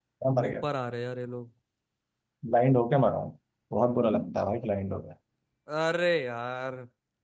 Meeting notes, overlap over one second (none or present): none